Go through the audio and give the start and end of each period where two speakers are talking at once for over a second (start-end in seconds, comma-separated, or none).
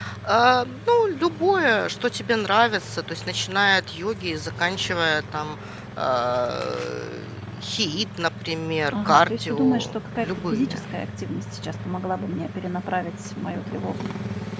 8.9-10.8